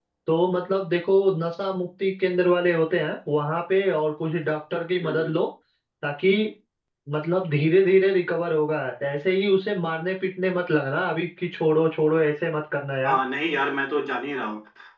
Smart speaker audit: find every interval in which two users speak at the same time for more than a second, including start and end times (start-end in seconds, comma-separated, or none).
none